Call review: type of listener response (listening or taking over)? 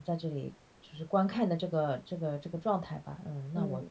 listening